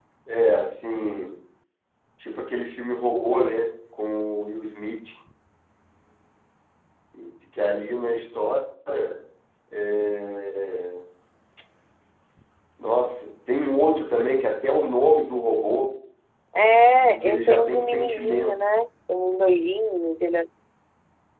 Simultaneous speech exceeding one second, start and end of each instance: 16.9-18.6

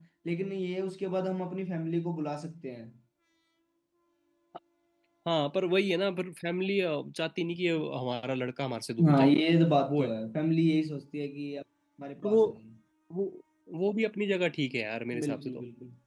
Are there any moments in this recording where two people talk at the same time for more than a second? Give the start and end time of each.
none

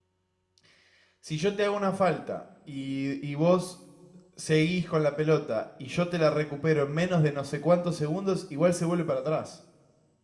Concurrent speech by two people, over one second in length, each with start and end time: none

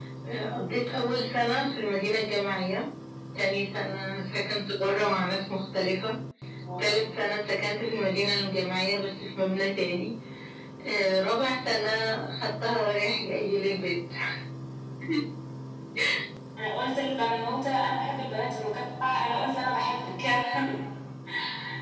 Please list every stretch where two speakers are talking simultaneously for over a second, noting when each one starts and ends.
none

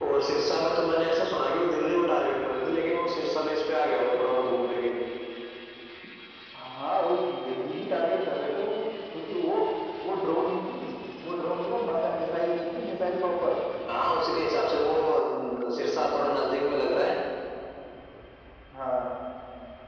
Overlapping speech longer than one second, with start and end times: none

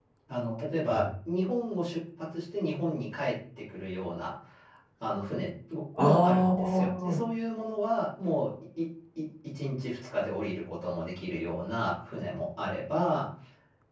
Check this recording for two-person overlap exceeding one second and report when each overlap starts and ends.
6.0-7.2

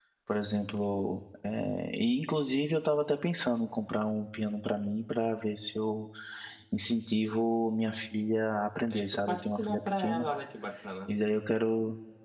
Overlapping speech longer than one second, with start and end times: 8.9-10.3

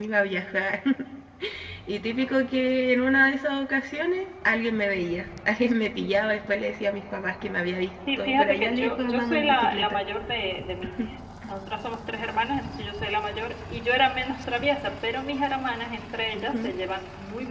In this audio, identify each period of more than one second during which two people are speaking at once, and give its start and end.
8.2-10.0

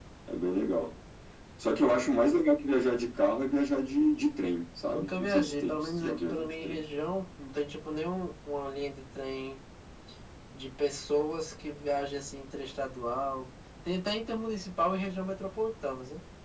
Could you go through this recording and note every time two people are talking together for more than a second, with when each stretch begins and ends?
4.8-6.8

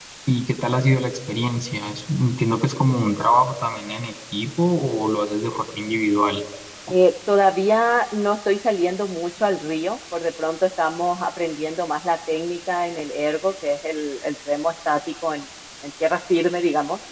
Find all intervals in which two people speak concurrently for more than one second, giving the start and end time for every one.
none

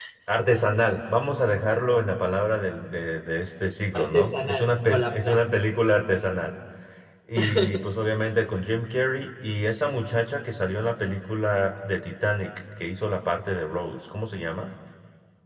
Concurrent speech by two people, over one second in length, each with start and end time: 3.9-5.4

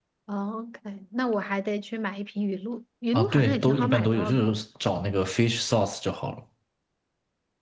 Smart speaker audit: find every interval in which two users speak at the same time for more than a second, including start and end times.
3.1-4.4

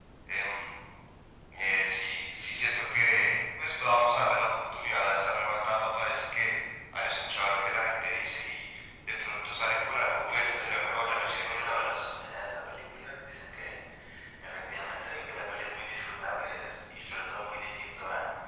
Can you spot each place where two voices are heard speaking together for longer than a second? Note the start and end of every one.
10.3-12.1

